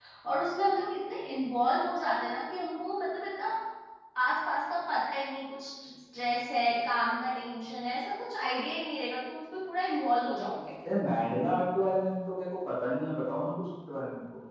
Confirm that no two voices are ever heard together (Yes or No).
Yes